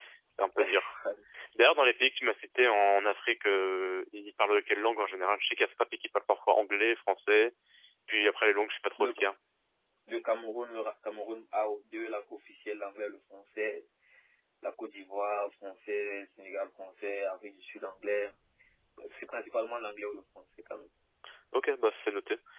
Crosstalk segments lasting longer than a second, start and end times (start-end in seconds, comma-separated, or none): none